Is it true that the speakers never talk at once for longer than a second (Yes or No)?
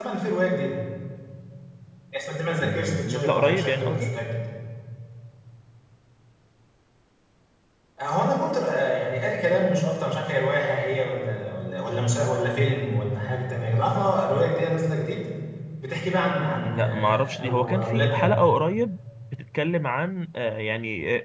No